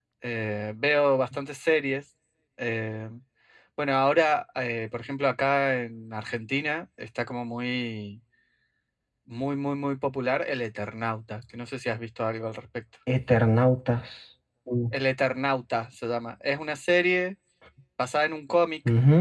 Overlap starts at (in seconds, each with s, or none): none